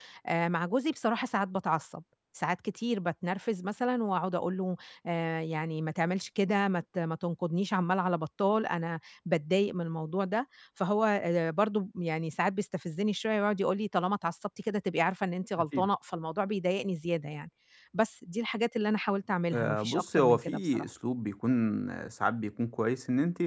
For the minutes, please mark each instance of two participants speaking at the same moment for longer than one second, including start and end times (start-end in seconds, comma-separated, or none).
19.5-20.9